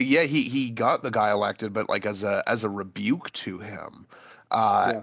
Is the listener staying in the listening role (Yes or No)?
Yes